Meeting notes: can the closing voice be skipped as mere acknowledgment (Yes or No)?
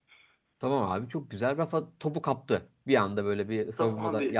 No